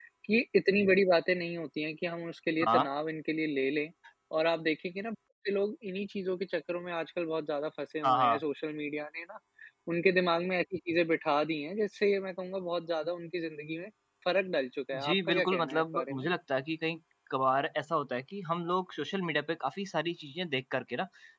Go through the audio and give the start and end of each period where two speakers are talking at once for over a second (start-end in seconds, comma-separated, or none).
15.0-16.3